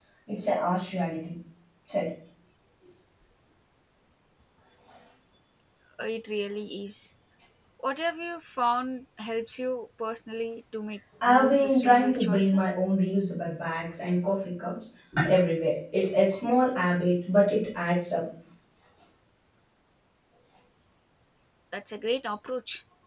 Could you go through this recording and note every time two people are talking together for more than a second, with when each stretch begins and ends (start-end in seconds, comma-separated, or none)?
11.2-12.7